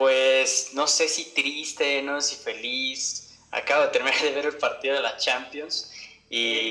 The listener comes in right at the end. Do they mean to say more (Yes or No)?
Yes